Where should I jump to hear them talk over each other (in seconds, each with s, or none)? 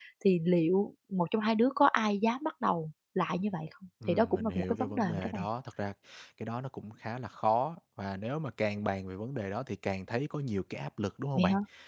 4.0 s